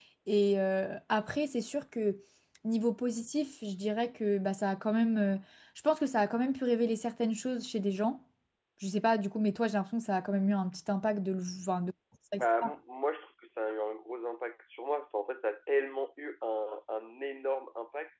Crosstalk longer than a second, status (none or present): none